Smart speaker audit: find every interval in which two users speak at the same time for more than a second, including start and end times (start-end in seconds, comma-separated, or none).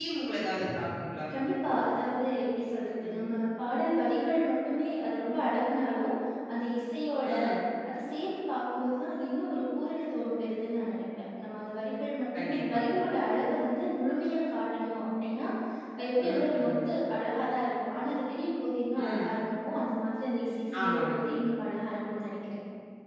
none